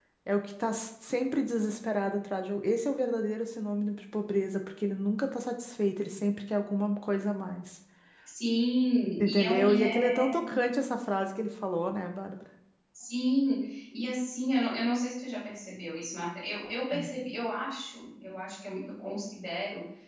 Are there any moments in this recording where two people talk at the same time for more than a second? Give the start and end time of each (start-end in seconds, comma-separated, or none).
9.2-10.5